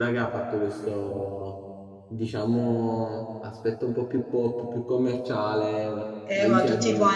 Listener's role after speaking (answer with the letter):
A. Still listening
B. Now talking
B